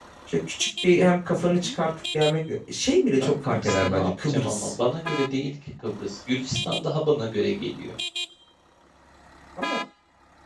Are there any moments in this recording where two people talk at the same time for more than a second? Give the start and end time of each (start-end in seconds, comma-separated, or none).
3.2-4.7